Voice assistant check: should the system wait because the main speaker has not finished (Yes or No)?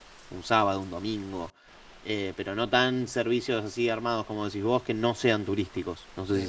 No